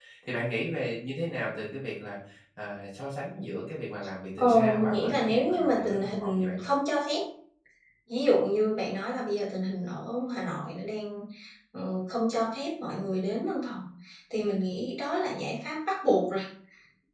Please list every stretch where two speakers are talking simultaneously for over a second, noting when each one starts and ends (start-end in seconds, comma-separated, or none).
4.4-6.6